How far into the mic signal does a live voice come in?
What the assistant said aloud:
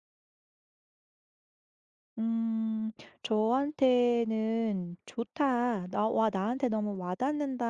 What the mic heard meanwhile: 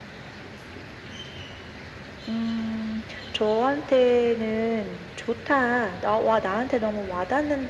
none

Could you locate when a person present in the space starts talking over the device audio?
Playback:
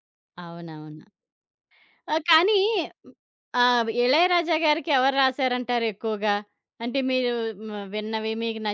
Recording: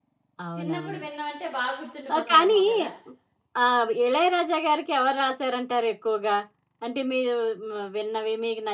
0.6 s

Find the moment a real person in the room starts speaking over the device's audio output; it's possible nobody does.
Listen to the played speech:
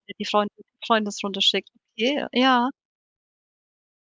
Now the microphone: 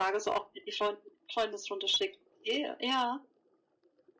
none

